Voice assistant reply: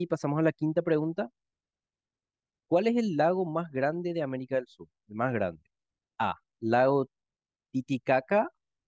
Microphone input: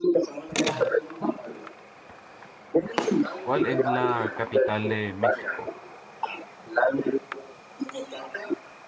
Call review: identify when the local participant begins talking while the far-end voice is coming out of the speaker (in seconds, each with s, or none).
3.4 s